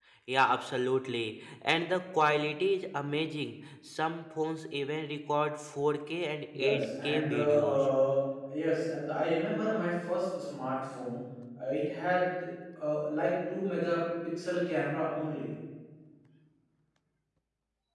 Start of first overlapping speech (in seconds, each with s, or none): 6.5 s